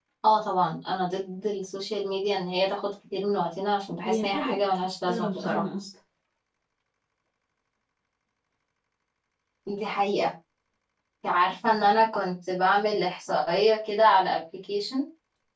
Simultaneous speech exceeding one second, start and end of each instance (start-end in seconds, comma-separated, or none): 4.0-5.6